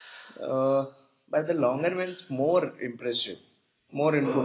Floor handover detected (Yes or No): No